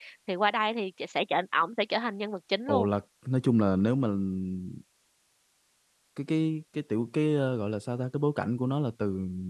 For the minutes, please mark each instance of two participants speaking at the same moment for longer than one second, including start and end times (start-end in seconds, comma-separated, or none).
none